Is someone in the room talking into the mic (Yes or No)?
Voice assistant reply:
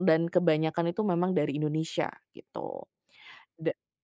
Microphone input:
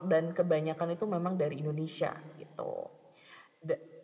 No